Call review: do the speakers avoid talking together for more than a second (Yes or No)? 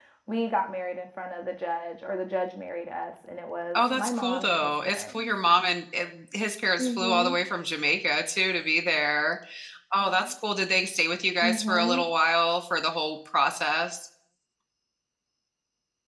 No